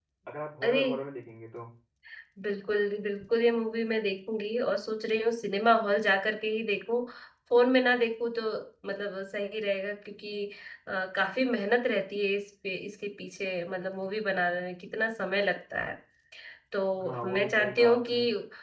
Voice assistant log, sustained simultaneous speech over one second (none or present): present